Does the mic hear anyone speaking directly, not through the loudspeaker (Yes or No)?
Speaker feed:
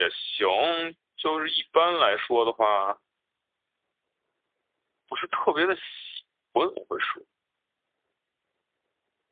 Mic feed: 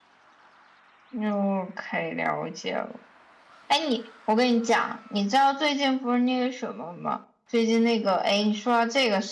Yes